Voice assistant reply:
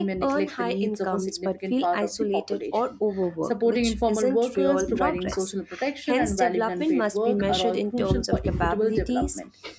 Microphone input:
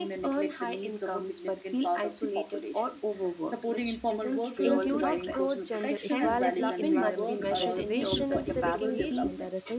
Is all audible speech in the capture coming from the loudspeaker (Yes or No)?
No